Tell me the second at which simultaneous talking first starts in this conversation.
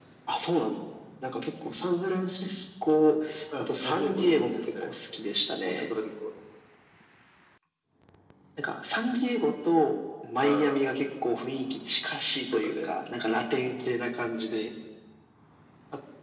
3.6 s

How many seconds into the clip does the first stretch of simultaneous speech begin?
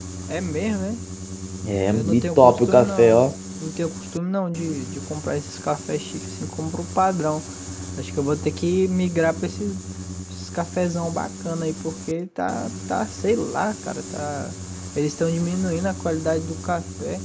1.9 s

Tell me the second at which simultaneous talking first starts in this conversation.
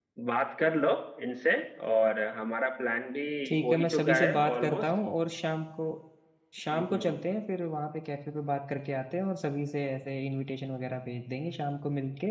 3.6 s

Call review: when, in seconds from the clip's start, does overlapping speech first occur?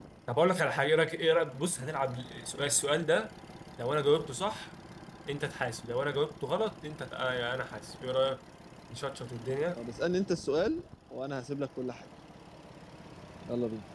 none

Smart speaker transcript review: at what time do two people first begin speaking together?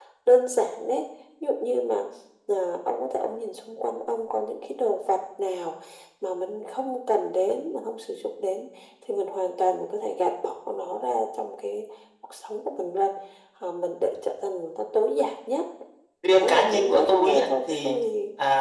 16.3 s

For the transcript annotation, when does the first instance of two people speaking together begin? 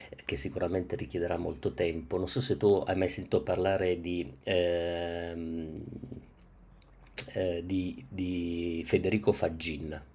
none

